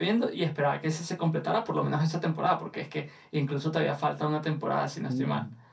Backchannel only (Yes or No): No